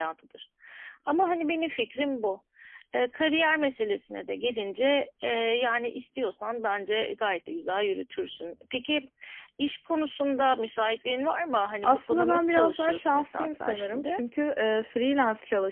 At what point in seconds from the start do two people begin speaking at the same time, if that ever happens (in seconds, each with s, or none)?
11.8 s